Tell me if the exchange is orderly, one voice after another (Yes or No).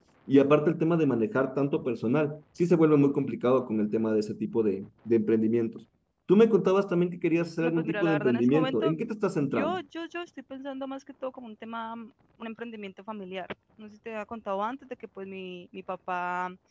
No